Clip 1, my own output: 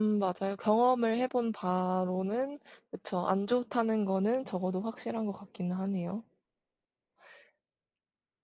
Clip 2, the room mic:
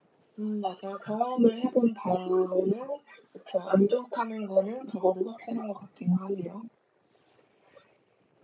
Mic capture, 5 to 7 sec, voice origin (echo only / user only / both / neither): echo only